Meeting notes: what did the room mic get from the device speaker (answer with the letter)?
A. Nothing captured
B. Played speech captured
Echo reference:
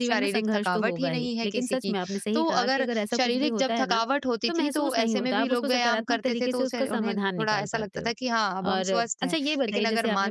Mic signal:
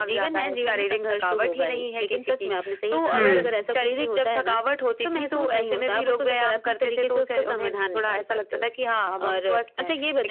B